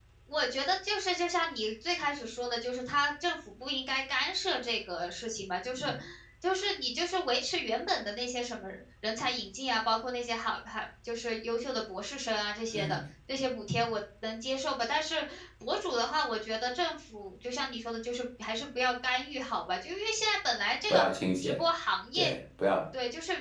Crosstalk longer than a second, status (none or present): none